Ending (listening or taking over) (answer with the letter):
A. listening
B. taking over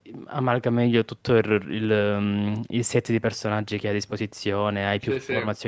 A